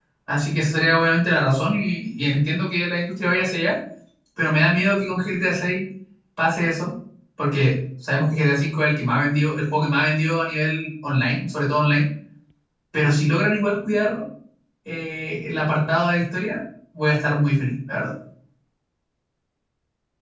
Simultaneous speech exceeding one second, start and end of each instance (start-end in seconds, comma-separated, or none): none